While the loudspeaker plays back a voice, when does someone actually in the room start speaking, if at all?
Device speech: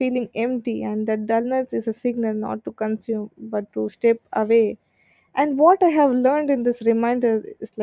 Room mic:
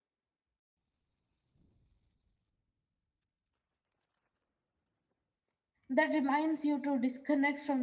5.9 s

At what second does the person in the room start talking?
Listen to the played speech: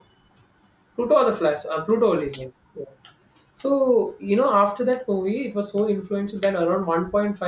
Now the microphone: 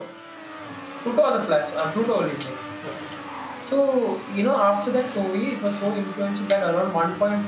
none

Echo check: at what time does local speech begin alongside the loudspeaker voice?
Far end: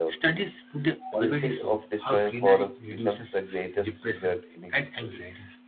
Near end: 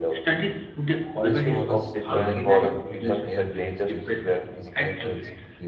1.2 s

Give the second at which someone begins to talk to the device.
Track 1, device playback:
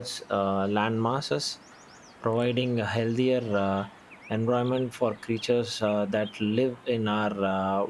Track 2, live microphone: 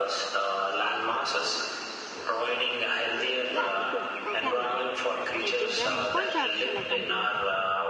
1.1 s

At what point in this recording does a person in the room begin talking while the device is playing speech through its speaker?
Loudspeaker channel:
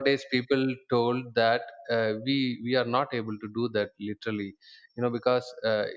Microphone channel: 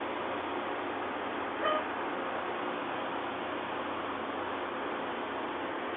none

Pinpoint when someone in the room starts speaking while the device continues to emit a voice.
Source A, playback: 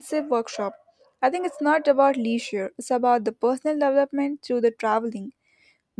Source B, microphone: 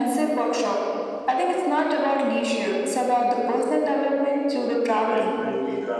5.0 s

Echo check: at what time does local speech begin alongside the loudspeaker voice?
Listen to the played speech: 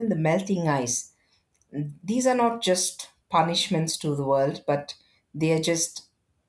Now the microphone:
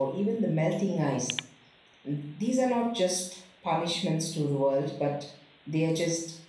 none

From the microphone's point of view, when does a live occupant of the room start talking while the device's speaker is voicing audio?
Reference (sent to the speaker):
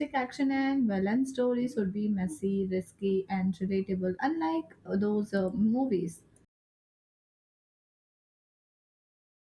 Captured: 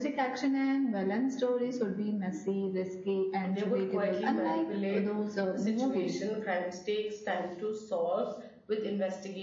3.5 s

